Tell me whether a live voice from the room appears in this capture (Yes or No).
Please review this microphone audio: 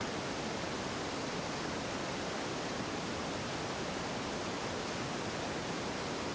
No